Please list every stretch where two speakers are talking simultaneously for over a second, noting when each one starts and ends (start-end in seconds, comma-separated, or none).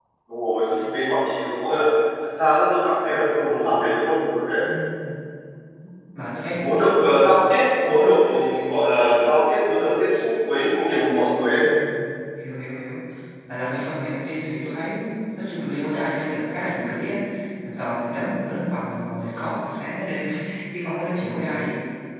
none